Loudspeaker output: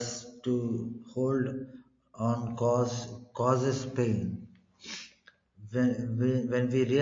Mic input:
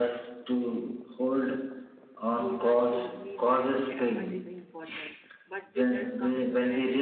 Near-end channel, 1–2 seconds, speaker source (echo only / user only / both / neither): echo only